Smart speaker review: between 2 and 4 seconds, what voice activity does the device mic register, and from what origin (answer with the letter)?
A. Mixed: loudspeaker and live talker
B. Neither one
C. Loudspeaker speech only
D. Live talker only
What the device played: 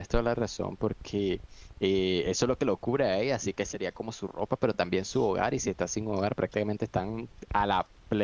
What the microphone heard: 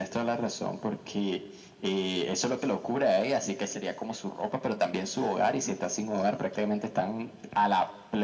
C